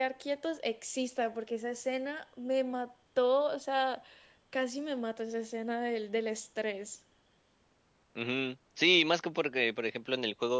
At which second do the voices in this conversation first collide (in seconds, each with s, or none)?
none